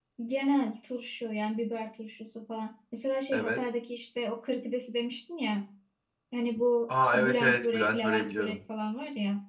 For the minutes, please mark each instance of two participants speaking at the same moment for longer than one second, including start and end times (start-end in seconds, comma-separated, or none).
7.0-8.6